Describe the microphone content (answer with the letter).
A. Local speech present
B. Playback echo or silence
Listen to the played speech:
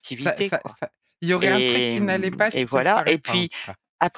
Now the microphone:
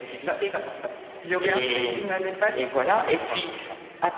B